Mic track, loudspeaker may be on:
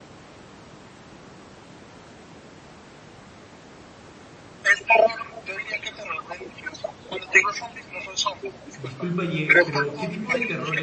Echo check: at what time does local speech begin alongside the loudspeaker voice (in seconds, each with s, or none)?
8.7 s